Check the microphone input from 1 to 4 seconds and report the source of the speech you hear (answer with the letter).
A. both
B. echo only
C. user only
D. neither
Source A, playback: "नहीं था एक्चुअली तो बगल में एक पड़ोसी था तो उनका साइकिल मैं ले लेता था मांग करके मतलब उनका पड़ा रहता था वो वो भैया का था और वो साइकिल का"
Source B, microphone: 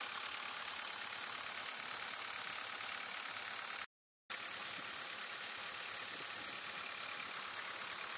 D